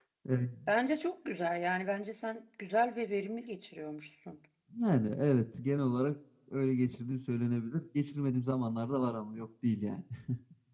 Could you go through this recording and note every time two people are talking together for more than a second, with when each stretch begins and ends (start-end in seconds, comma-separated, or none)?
none